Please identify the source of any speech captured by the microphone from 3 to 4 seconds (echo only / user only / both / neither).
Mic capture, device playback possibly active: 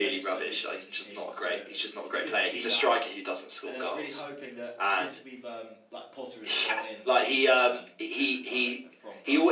both